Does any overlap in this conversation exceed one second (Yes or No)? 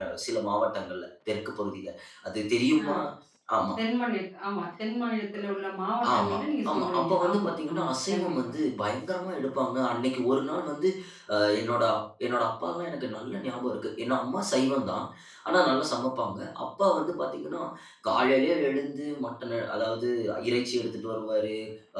Yes